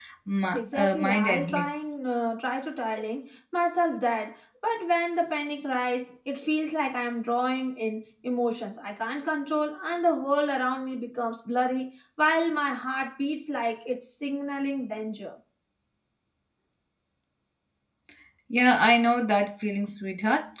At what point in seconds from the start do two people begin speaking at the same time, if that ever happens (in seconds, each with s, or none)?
0.6 s